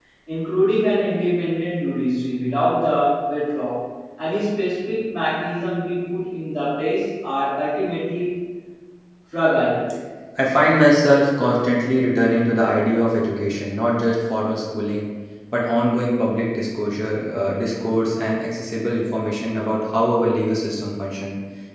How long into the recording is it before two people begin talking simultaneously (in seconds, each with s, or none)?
none